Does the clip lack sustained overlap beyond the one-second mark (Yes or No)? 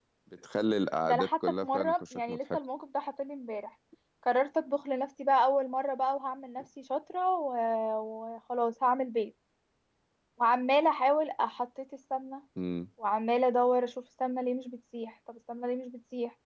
No